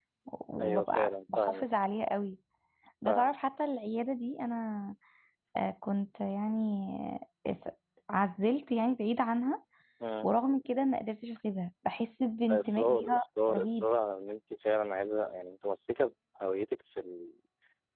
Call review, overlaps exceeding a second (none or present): present